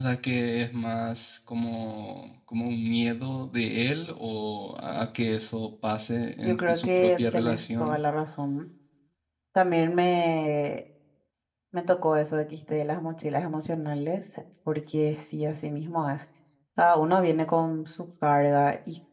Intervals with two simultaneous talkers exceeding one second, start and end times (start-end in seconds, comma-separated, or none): 6.4-8.0